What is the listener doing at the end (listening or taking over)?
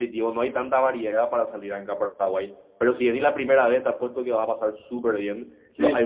listening